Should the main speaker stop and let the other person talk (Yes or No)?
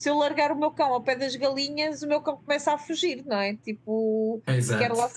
No